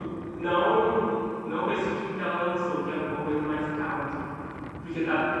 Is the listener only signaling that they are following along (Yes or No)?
Yes